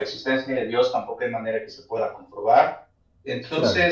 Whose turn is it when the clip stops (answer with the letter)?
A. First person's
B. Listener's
A